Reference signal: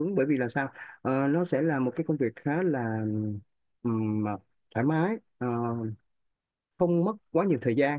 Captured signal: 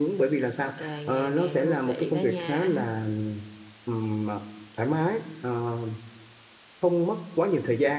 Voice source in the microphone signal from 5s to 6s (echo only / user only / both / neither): echo only